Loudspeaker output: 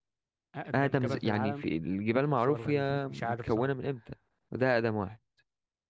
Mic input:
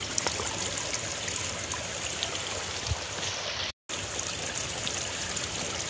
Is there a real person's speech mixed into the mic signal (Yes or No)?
No